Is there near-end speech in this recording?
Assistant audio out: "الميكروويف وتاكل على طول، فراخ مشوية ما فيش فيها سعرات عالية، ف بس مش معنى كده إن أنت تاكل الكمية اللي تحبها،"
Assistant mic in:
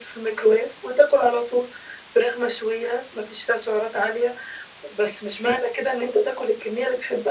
No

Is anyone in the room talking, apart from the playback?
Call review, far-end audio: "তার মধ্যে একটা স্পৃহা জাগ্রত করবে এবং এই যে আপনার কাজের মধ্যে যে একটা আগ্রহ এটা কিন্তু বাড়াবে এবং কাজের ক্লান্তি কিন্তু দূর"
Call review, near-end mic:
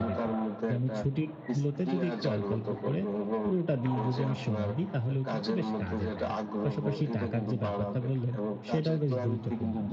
Yes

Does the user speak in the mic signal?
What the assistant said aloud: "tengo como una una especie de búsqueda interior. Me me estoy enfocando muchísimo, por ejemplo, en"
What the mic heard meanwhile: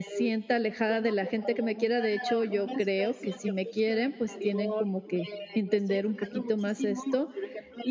Yes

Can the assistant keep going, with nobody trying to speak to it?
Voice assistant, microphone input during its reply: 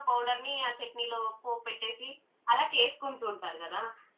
Yes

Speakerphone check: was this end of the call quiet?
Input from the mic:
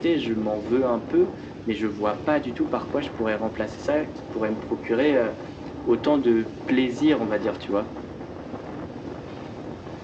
Yes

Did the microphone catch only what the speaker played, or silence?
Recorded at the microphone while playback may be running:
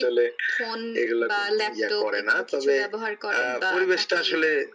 Yes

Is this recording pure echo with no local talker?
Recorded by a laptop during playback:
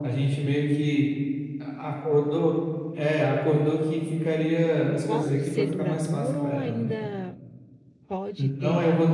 No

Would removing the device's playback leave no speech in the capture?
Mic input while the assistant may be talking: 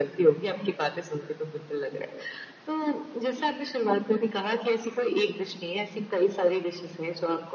Yes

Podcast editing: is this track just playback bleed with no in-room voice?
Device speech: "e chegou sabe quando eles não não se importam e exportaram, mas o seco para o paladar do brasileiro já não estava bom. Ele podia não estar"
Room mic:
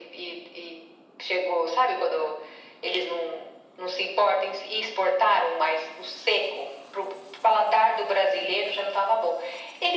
Yes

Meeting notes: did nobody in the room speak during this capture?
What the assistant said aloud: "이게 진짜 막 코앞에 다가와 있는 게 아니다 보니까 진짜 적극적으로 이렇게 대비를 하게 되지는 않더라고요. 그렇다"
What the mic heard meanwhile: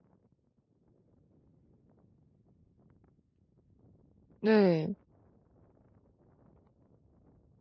No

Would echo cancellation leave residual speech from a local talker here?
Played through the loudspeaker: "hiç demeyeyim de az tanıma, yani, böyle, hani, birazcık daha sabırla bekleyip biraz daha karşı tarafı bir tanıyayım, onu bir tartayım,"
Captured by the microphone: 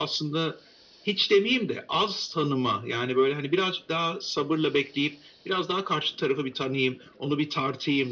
No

